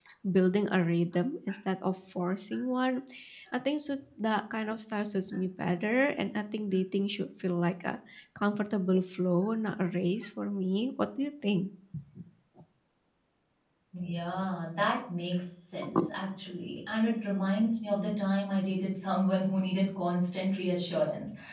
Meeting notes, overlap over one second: none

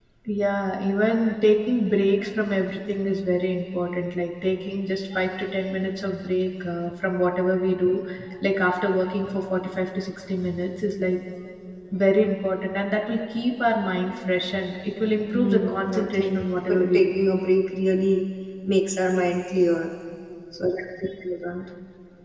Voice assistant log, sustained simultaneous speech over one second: present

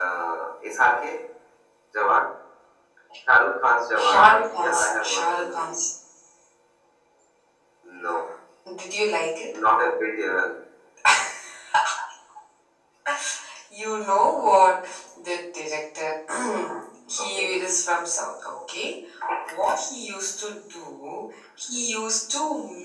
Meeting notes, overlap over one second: present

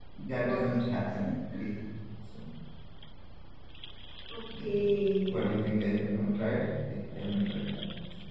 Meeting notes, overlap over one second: none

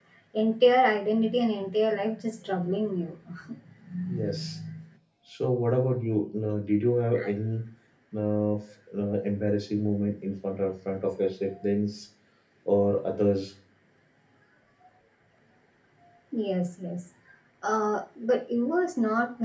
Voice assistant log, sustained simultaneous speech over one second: none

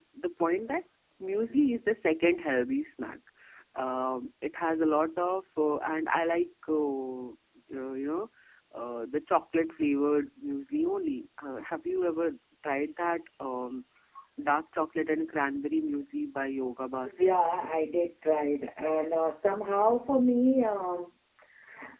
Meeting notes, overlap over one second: none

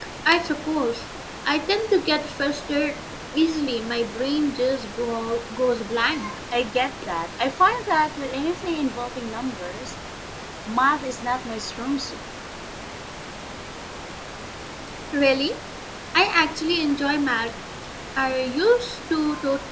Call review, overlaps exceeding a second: none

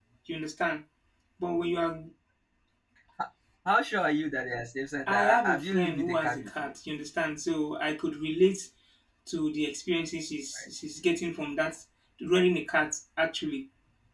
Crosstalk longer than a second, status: present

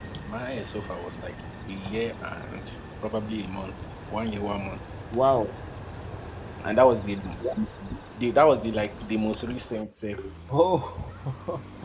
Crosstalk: none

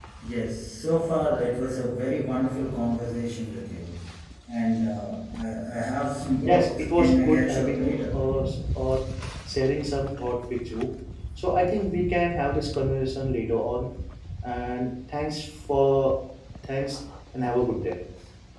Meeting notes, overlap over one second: present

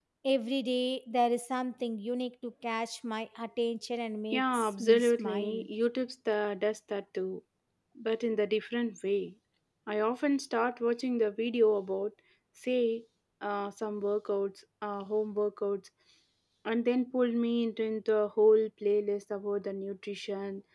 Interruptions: present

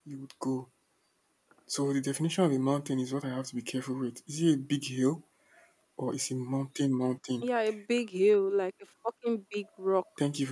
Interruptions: none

